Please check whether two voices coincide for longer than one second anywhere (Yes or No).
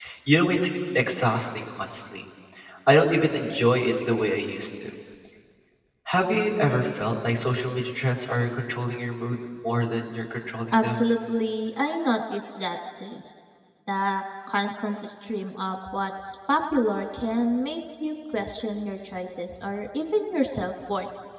No